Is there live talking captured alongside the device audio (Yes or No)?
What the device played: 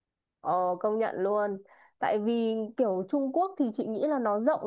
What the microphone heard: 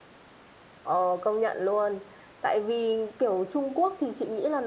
No